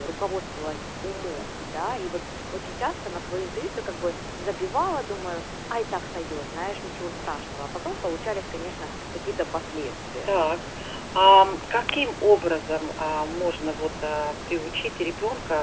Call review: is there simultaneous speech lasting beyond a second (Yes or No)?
No